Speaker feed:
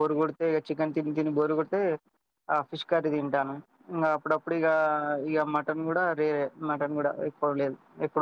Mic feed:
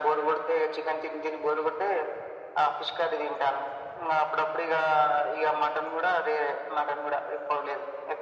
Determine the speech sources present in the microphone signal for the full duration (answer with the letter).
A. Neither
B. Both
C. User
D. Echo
D